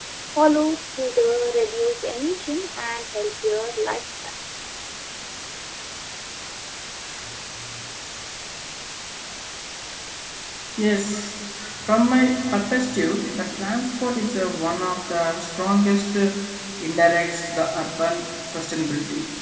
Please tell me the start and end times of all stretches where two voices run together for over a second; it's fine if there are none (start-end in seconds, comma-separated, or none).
none